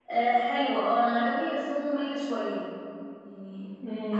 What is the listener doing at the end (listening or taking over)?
taking over